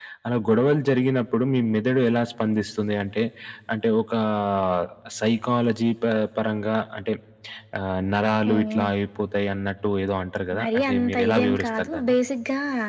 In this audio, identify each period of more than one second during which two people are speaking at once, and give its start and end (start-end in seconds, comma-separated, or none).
10.6-12.1